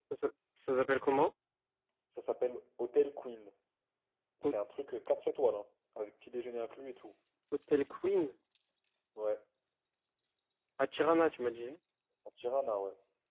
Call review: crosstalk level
none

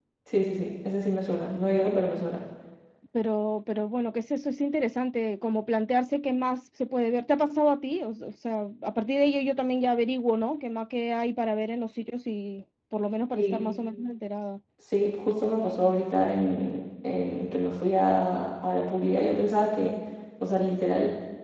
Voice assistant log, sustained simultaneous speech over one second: none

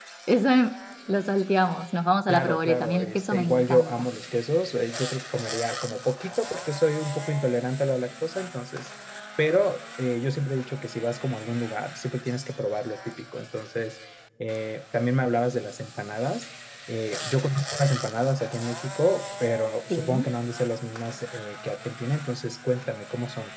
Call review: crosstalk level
present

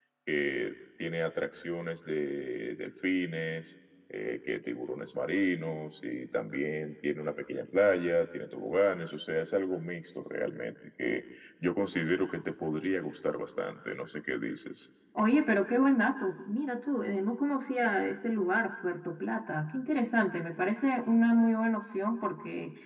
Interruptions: none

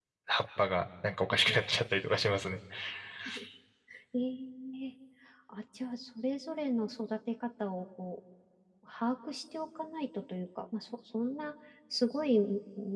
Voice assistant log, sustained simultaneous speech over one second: none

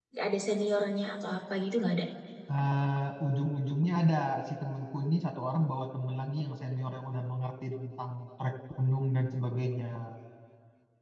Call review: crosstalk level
none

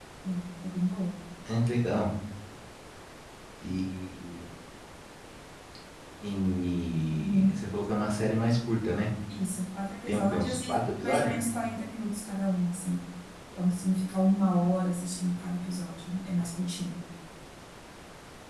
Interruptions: present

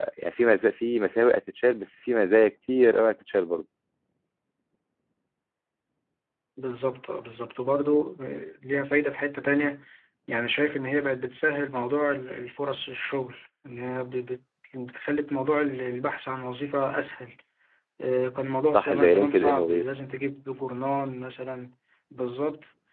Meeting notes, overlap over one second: present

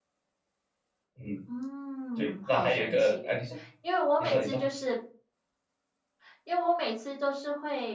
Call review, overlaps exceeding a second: present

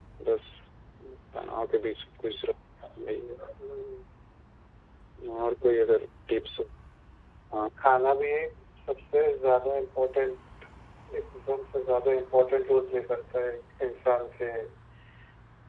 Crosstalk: none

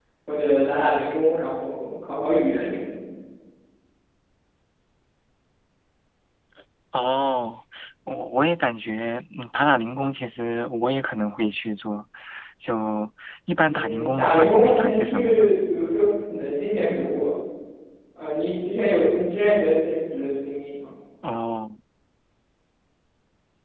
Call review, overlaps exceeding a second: present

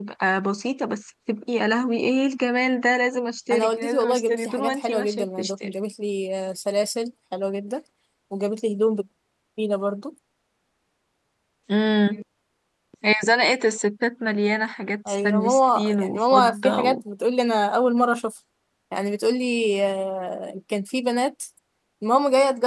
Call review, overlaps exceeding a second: present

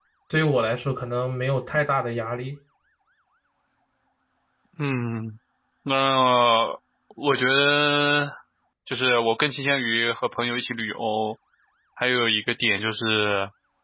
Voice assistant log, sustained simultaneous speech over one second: none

